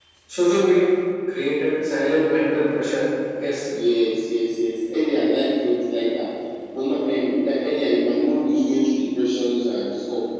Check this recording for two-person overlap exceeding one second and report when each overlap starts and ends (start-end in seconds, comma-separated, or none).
none